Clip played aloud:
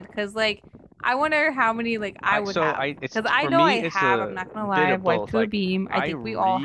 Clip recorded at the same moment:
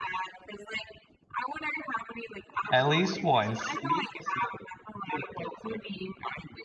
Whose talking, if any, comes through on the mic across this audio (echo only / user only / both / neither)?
both